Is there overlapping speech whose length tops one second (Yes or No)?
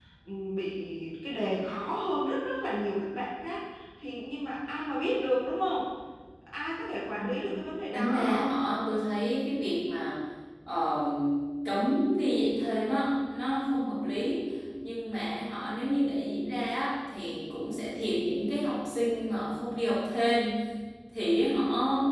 No